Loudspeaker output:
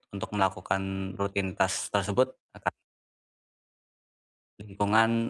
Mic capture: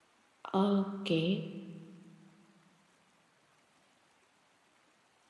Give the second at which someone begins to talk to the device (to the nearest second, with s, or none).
1 s